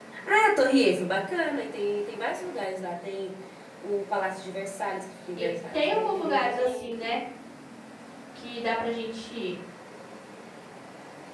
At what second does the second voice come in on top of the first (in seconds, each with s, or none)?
5.4 s